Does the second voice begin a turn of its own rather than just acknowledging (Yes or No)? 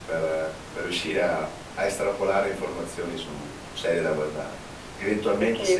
No